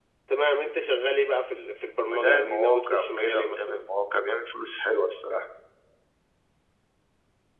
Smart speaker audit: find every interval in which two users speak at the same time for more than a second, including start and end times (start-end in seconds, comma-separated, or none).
2.1-3.8